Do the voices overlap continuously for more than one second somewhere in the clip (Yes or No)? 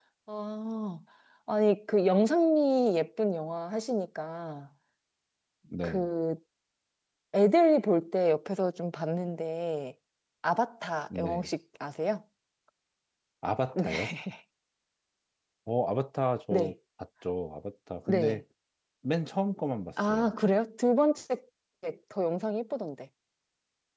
No